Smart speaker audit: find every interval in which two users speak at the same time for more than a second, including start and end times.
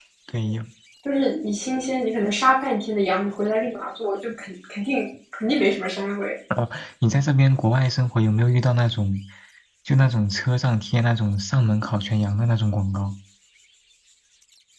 none

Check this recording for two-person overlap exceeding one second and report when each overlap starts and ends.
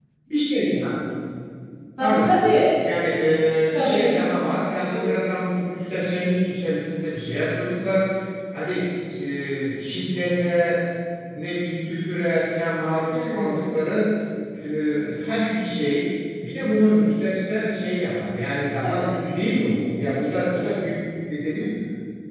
none

